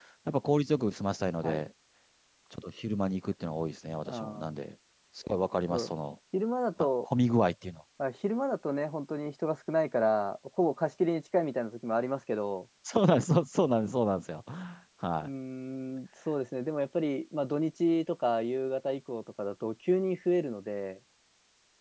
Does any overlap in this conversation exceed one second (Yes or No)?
No